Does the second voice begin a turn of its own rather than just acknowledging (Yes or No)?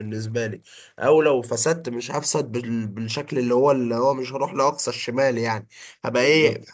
No